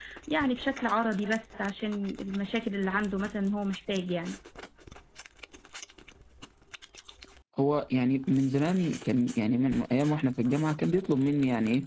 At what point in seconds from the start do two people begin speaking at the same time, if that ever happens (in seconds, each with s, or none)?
none